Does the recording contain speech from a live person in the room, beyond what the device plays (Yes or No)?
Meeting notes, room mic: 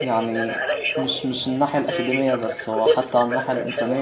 Yes